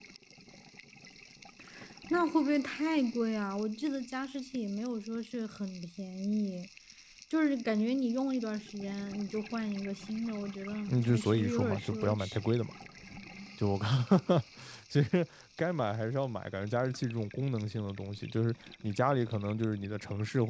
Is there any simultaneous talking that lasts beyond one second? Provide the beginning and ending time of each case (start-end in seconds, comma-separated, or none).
11.1-12.4